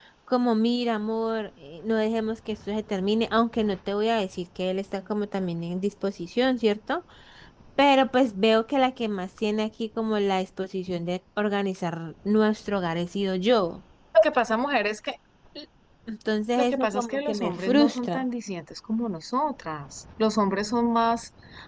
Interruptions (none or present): present